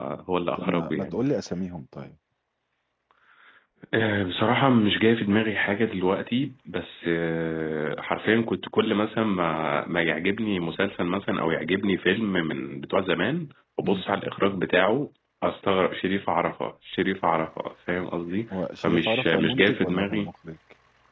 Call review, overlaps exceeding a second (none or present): present